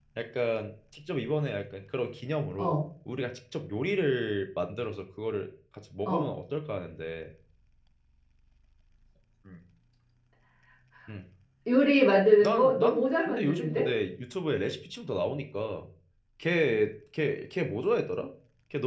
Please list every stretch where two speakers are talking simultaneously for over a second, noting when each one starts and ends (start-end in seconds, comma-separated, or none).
12.4-13.9